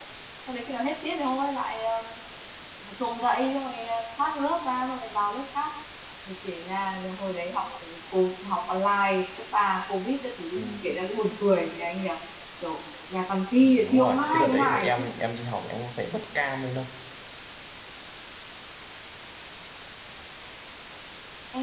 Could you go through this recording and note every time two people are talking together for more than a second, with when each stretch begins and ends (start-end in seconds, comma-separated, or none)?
13.6-14.9